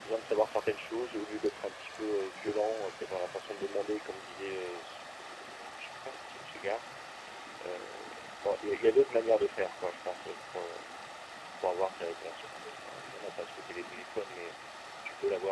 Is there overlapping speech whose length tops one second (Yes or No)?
Yes